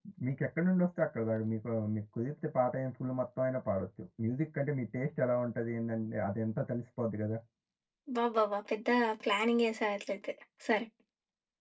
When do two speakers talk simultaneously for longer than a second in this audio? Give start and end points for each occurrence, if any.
none

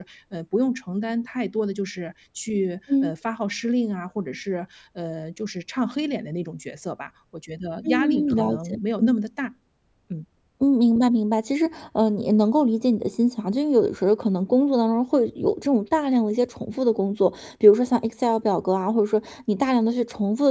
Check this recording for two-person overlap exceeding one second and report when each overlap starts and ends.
7.8-9.1

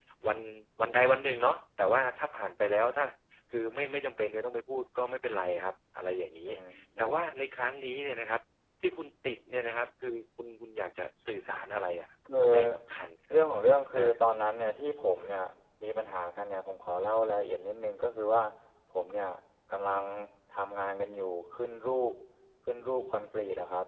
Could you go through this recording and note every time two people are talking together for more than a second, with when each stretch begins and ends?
none

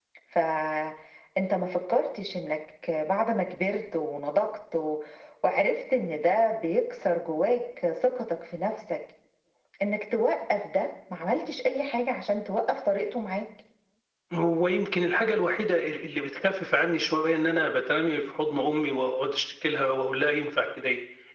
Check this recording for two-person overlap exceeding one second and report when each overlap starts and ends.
none

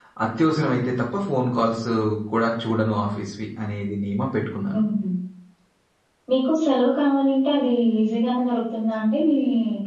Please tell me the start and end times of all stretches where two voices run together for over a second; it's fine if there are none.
none

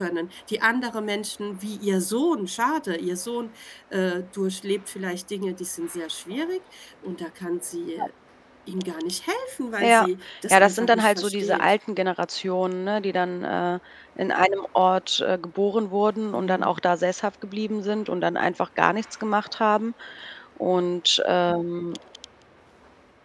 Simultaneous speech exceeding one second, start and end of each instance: 10.5-11.7

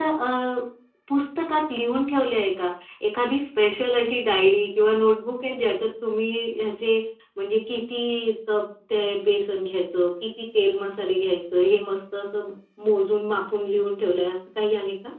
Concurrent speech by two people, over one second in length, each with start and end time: none

